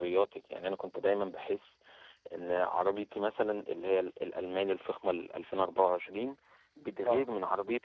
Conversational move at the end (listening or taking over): listening